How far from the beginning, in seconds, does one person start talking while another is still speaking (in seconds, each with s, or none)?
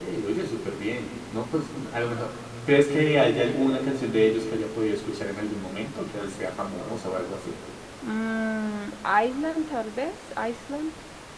none